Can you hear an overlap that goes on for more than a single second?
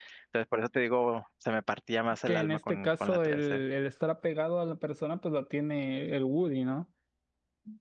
Yes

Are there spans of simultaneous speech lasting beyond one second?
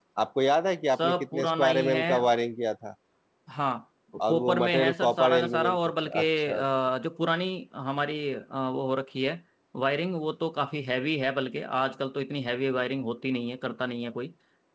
Yes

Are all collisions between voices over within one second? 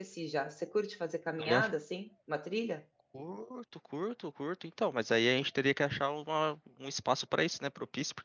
Yes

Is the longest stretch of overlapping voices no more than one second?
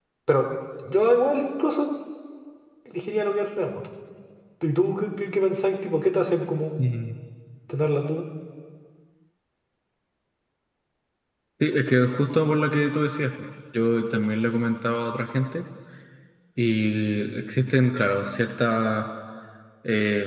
Yes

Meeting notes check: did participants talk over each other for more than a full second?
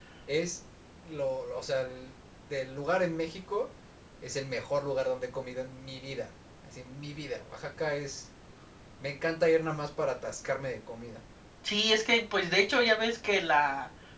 No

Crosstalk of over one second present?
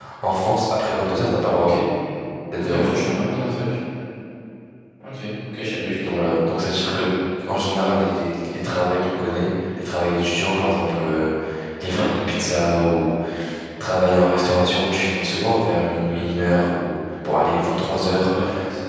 No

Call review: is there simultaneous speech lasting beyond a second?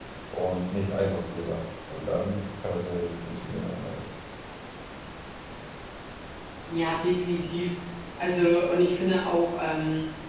No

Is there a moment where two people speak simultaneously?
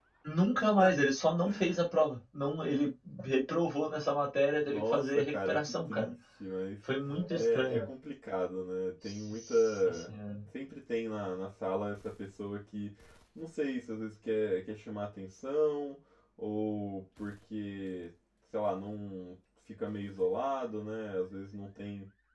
Yes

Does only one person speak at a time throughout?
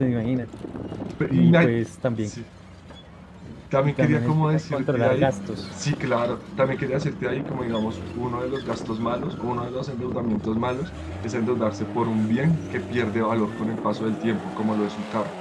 No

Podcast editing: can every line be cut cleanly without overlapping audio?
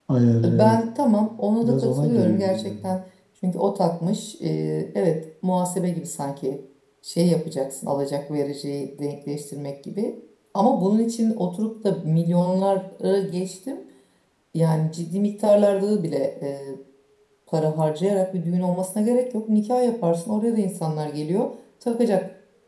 No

